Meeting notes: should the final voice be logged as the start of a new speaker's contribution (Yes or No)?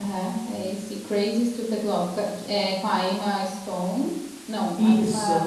No